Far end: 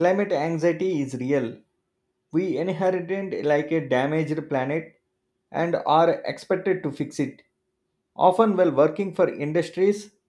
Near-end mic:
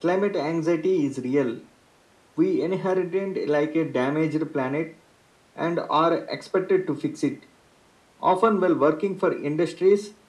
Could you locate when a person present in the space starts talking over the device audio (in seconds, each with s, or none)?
none